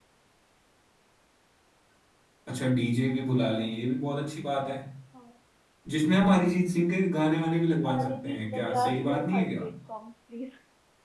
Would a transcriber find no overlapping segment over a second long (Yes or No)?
No